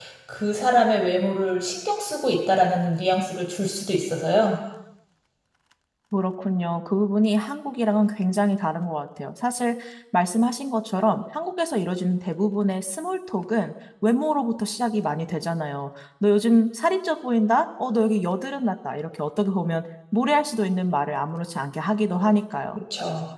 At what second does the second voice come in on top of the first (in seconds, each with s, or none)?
none